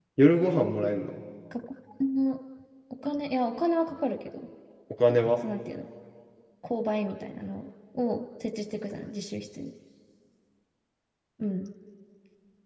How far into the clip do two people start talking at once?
none

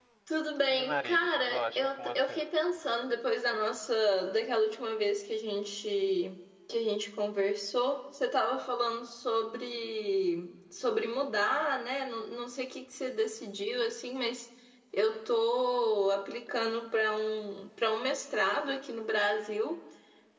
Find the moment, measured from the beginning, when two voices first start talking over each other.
1 s

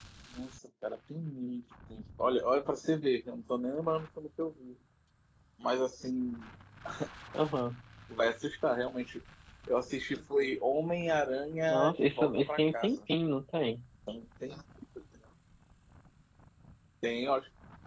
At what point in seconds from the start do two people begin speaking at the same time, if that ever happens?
12 s

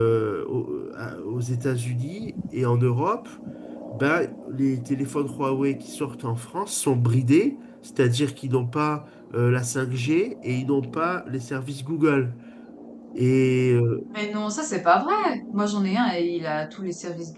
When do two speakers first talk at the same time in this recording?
none

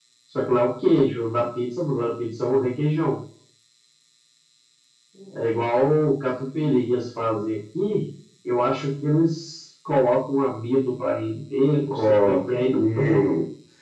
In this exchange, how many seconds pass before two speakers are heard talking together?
12 s

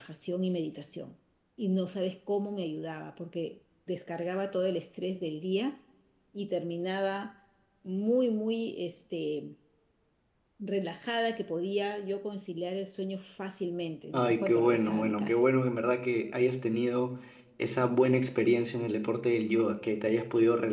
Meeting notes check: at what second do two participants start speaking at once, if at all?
14 s

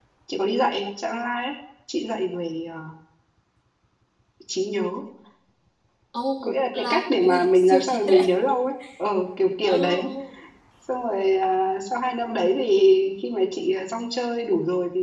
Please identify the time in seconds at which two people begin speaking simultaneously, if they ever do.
6 s

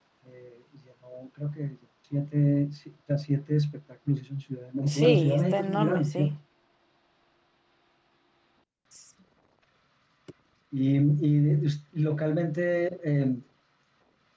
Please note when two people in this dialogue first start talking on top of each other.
5 s

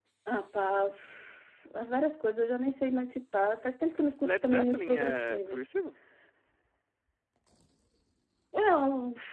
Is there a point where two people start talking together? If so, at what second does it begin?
4 s

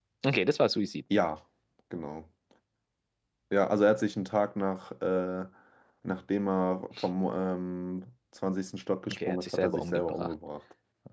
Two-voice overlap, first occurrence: 9 s

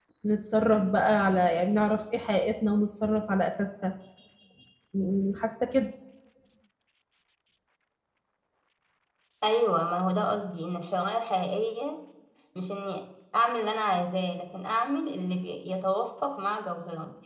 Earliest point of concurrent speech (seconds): none

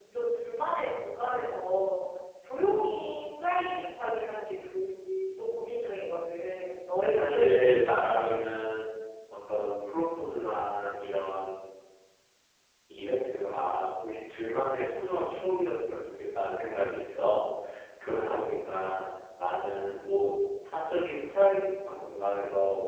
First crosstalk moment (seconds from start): 7 s

